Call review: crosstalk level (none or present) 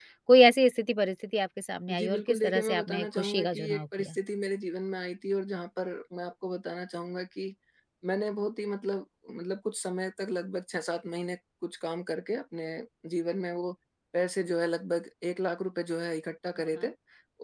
present